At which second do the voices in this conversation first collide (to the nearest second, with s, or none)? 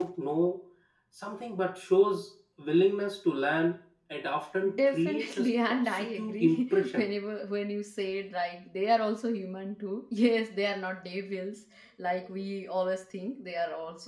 5 s